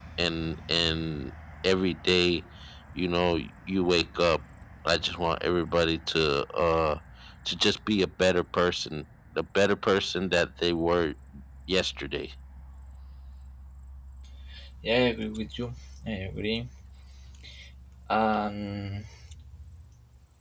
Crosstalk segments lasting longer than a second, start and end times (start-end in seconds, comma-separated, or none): none